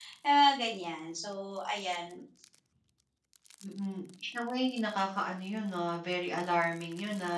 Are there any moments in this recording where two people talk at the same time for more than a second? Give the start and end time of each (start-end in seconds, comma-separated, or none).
none